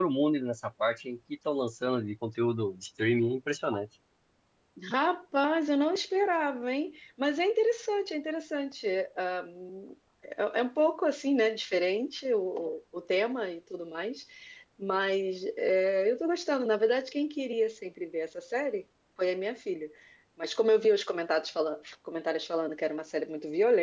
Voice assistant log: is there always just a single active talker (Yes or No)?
Yes